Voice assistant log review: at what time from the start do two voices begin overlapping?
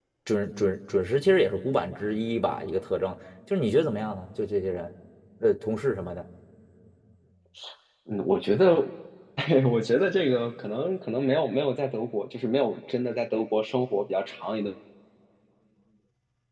none

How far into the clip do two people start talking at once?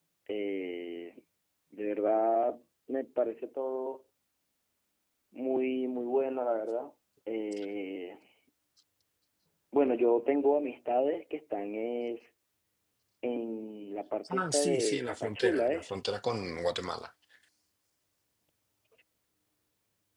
14 s

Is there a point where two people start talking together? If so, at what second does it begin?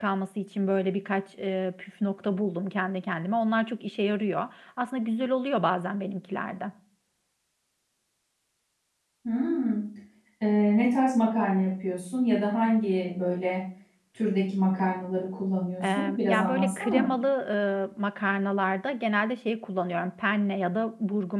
16 s

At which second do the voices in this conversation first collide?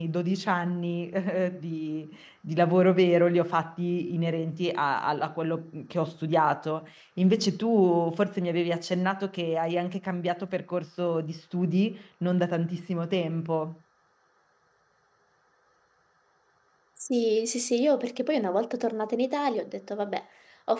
none

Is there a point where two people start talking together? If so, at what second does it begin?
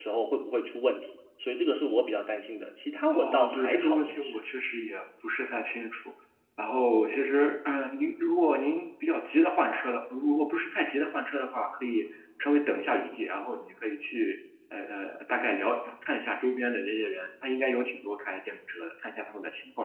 3 s

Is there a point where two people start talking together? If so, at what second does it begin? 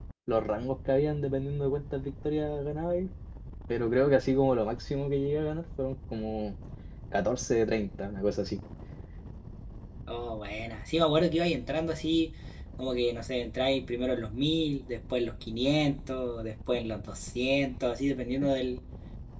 none

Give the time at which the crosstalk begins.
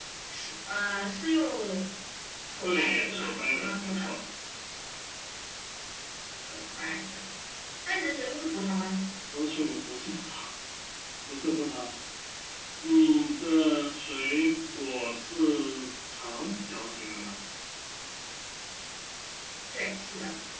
3 s

